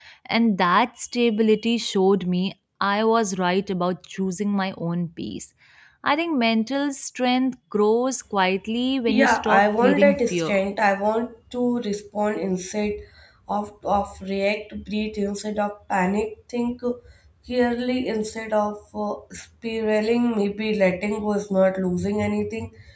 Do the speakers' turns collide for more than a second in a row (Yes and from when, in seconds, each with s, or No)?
Yes, from 9.1 s